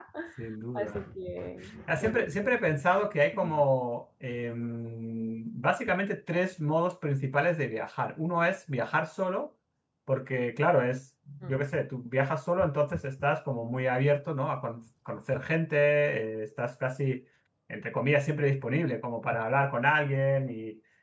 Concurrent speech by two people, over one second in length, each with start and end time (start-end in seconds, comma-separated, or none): 1.9-3.1